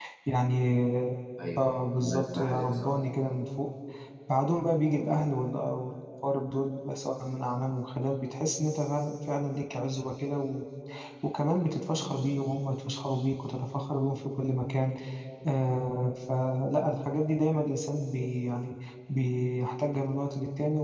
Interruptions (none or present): present